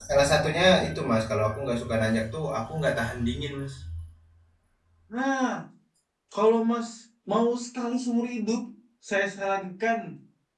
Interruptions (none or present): none